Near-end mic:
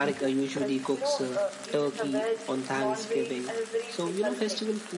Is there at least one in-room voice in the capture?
No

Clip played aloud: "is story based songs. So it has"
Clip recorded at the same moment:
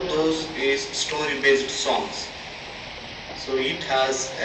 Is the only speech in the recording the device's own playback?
Yes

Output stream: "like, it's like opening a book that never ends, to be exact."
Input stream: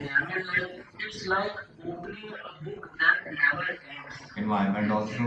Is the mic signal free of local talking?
No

